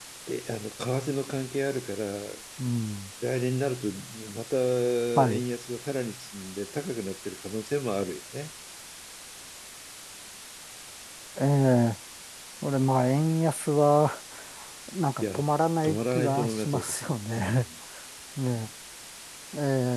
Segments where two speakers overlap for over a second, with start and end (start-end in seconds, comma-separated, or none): 15.8-17.6